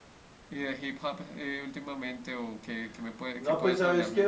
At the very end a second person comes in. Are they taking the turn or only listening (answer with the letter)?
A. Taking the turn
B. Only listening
A